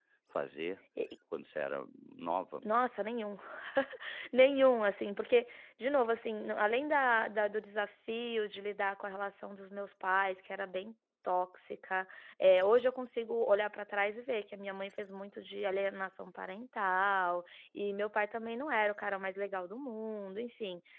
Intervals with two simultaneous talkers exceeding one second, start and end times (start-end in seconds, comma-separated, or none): none